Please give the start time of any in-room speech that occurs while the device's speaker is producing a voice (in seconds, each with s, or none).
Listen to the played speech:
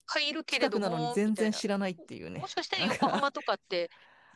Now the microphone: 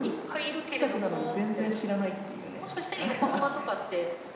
none